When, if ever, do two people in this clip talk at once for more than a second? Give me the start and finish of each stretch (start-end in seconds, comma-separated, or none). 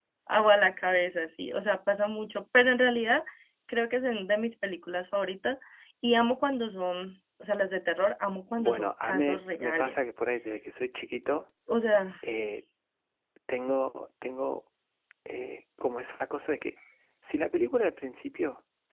8.6-10.0